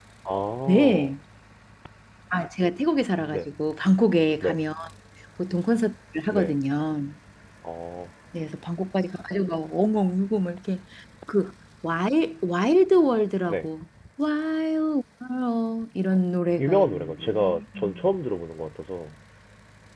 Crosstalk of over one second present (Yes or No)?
Yes